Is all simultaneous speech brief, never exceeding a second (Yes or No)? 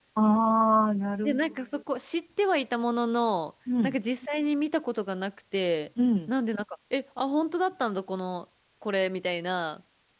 Yes